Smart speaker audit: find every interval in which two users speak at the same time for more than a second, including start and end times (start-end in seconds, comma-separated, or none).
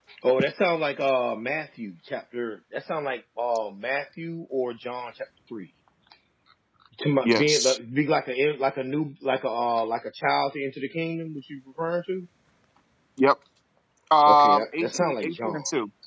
14.3-15.6